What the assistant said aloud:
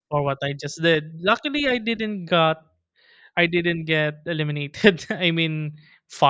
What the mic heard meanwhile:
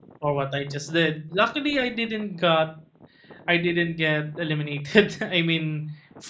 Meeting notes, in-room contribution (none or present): none